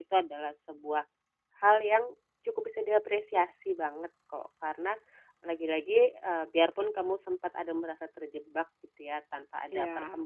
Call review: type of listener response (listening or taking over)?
listening